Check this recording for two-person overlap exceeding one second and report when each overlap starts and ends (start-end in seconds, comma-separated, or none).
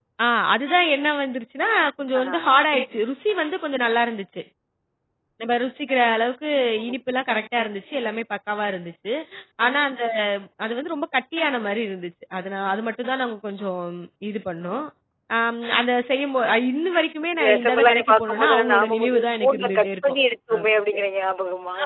17.5-19.9